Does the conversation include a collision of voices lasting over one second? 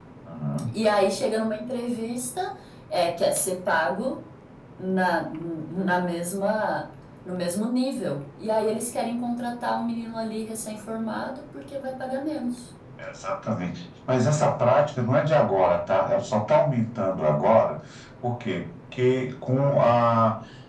No

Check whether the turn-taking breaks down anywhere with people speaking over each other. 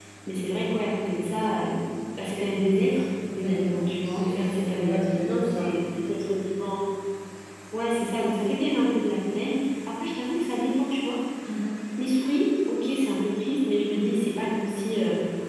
Yes, from 3.2 s

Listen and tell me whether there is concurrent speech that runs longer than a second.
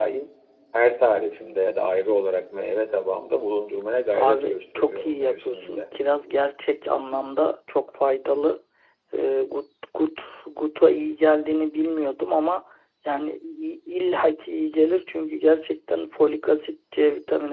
Yes, from 4.1 s

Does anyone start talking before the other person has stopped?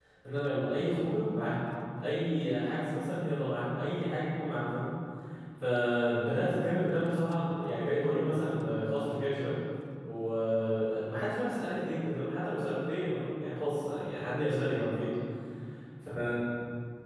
No

